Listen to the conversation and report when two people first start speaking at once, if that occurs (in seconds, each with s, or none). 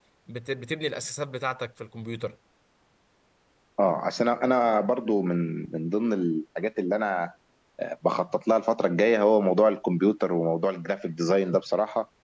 none